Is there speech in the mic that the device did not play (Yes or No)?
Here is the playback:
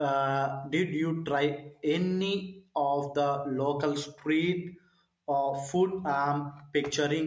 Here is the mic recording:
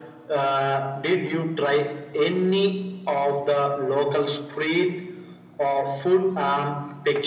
No